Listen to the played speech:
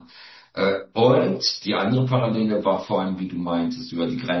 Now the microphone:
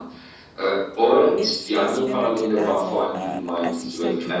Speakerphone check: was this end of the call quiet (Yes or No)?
No